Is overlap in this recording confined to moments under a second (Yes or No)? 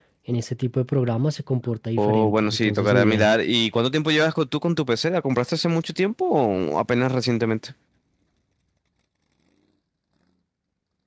No